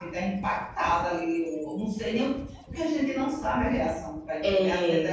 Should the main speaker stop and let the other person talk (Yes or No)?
No